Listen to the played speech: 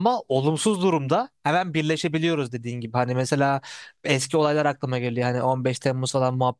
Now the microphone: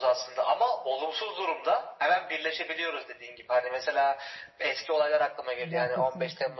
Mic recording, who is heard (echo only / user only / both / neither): both